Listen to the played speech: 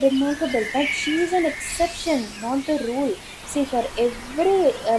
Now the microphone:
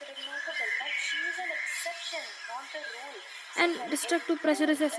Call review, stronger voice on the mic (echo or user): user